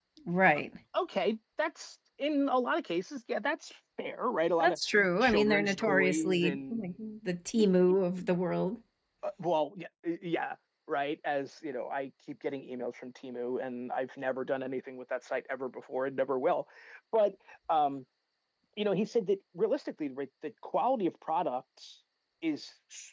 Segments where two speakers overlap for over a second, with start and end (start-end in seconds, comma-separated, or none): 5.2-6.9